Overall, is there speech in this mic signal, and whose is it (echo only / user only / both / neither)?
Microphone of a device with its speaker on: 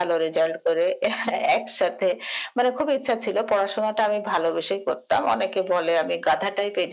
echo only